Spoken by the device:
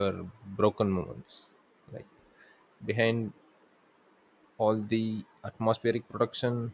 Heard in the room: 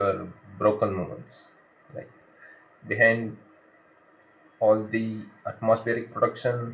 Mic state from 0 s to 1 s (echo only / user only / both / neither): echo only